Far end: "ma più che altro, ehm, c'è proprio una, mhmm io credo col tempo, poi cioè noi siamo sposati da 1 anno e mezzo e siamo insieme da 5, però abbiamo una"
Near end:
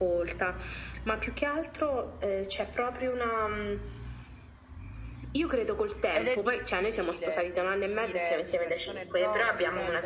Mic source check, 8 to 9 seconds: both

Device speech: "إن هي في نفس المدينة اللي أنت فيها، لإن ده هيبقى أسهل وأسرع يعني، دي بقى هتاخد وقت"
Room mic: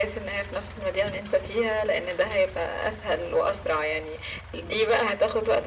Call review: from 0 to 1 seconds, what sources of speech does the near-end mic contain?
echo only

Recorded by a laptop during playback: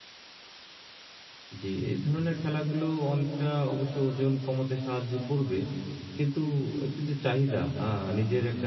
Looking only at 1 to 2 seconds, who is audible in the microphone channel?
user only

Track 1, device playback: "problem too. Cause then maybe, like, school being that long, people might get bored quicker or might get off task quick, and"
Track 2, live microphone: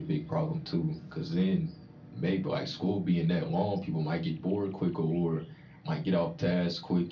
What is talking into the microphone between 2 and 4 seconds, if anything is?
echo only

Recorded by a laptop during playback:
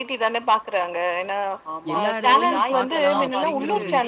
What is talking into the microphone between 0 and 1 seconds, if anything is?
echo only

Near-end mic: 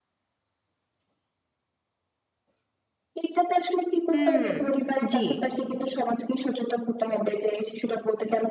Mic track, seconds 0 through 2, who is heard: neither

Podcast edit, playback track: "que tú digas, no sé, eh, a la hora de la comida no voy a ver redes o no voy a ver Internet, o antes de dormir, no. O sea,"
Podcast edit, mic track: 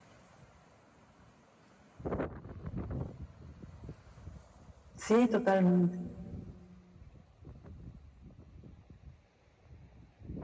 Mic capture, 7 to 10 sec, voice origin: neither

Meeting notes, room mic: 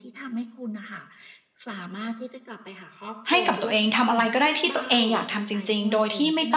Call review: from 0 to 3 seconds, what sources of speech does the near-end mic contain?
echo only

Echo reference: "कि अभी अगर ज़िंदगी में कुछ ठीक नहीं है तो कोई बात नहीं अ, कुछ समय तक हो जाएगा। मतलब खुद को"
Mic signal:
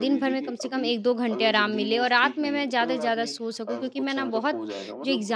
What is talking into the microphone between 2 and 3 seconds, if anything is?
both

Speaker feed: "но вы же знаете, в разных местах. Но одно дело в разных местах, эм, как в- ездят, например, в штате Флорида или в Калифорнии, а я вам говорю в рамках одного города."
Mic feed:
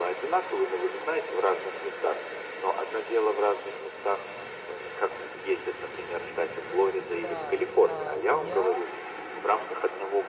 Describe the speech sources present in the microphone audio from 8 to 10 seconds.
both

